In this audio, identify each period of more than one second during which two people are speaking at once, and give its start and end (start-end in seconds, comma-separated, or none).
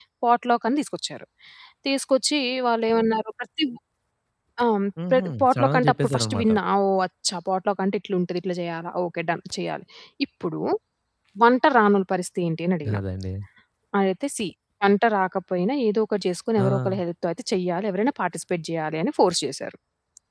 5.1-6.5